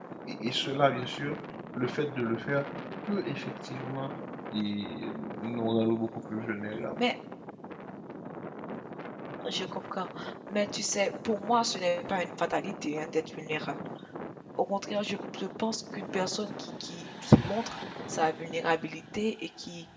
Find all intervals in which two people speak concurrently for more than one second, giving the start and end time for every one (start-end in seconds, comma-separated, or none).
none